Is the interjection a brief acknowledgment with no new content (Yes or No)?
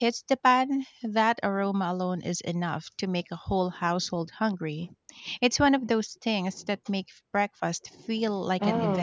No